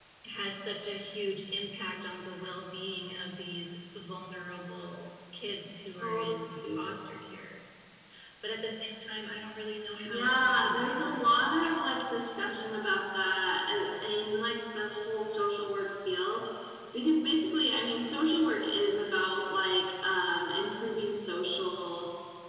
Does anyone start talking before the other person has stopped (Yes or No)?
Yes